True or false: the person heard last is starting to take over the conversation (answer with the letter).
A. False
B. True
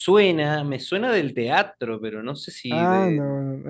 B